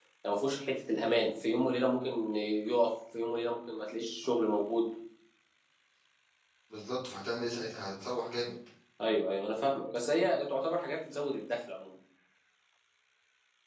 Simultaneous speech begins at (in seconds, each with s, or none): none